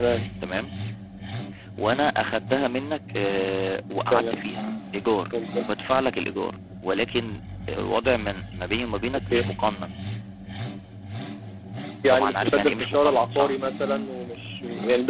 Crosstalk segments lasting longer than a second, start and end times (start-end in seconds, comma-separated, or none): 12.1-13.6